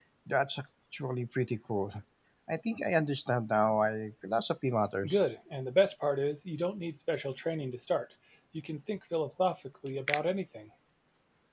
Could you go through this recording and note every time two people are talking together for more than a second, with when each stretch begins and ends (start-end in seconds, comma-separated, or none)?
none